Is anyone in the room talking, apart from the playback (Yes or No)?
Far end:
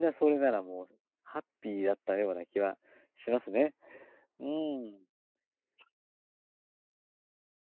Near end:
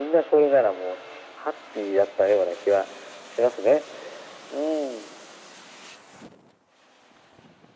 No